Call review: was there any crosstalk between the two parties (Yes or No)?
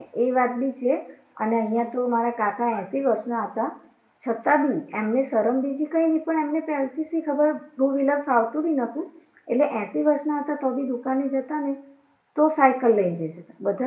No